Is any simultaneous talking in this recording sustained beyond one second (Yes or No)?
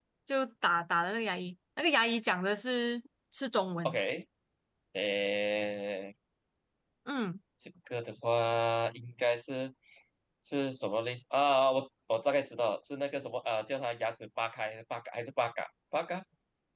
No